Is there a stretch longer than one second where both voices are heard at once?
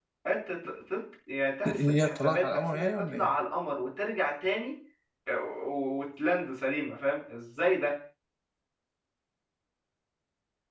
Yes, from 1.6 s

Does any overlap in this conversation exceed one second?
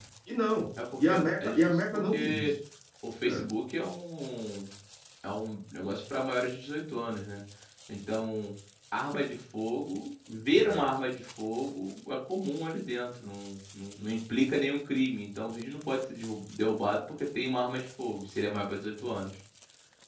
Yes, from 1.0 s

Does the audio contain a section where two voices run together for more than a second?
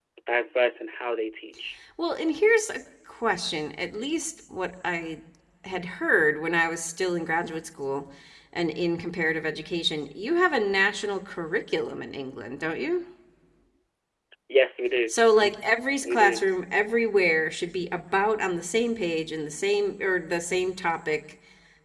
No

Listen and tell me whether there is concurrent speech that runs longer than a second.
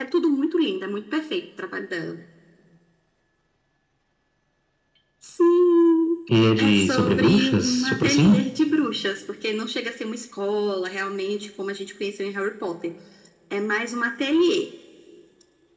Yes, from 6.6 s

